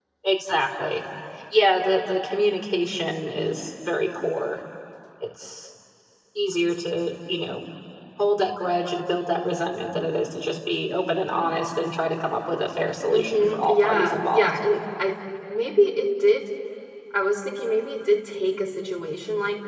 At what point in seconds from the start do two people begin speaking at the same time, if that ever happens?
13.1 s

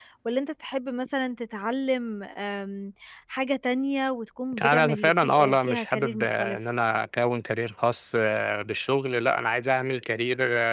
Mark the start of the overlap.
4.5 s

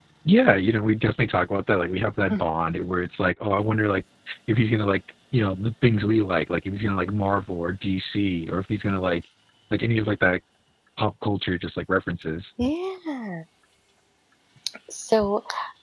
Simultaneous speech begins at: none

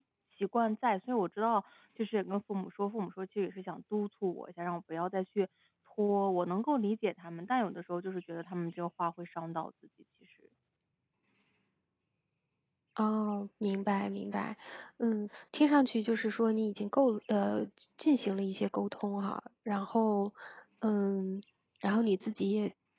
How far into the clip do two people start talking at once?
none

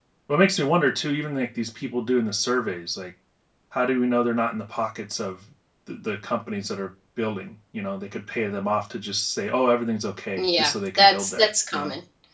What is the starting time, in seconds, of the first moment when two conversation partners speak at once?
10.4 s

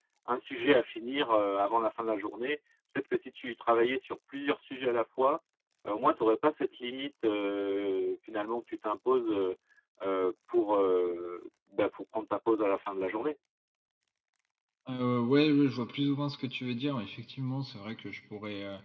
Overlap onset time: none

